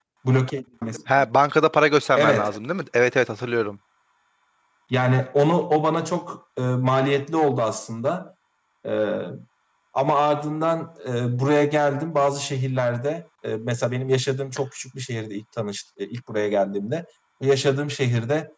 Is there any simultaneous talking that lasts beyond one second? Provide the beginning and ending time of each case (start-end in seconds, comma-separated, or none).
none